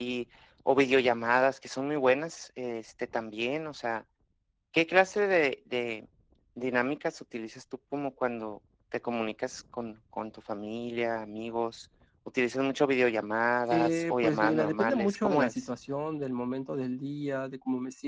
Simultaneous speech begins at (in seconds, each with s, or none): 13.7 s